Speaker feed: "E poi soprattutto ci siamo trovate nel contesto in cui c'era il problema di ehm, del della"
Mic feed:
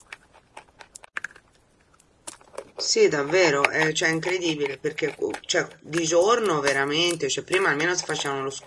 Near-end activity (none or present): present